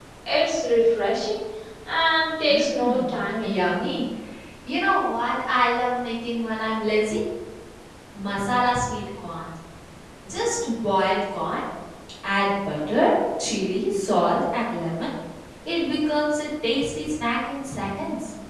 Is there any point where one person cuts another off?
Yes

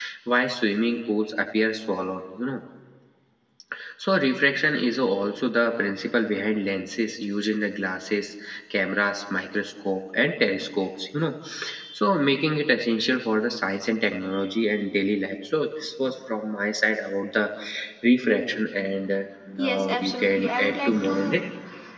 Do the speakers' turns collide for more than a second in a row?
Yes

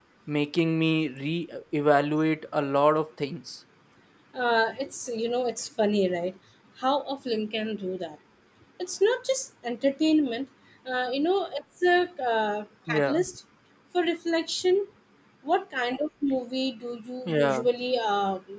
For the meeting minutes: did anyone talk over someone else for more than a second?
No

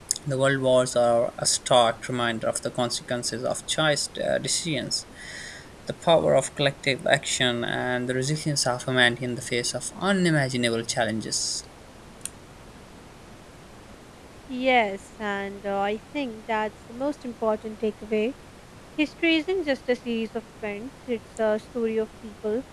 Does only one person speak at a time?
Yes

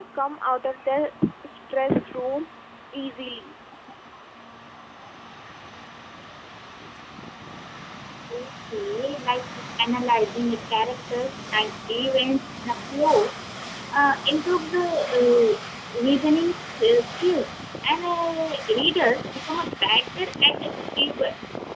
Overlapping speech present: No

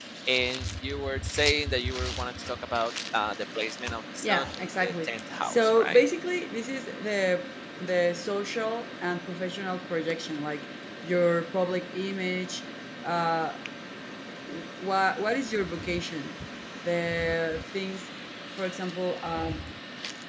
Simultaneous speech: Yes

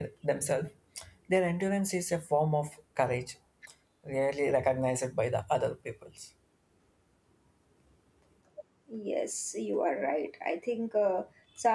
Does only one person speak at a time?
Yes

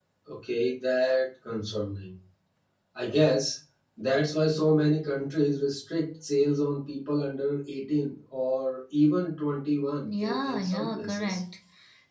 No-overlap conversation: No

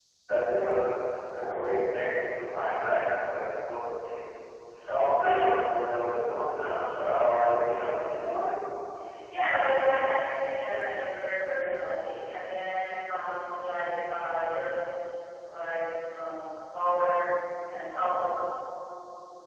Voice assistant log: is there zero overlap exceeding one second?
Yes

